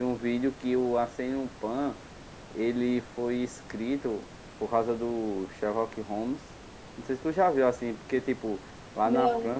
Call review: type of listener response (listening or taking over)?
listening